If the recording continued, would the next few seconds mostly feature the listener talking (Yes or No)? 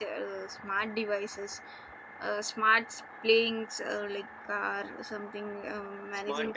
Yes